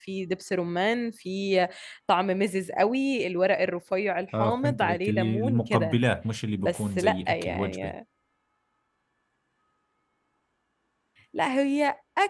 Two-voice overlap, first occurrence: 4.4 s

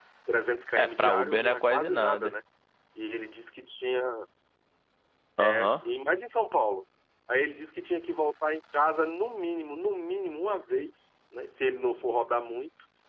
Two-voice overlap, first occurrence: 0.8 s

